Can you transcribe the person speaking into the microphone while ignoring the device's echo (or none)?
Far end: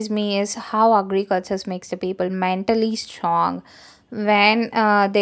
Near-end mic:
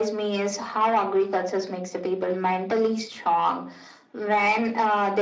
none